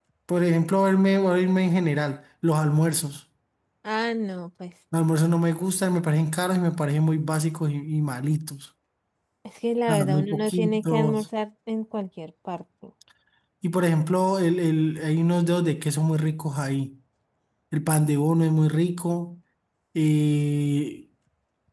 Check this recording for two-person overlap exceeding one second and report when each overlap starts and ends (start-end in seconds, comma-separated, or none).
9.9-11.2